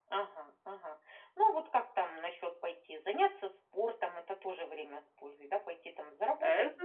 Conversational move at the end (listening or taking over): taking over